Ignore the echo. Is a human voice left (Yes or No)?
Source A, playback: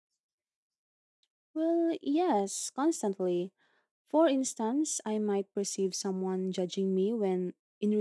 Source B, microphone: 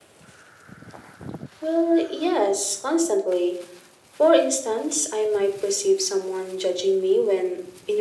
No